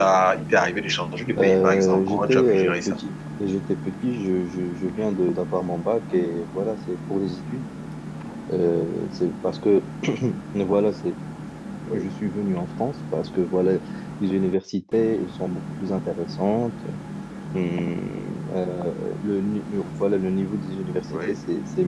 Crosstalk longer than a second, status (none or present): present